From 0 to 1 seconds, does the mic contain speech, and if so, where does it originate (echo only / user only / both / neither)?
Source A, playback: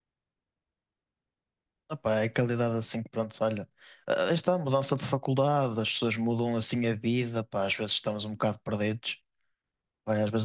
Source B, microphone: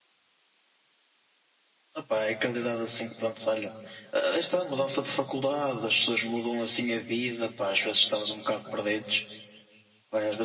neither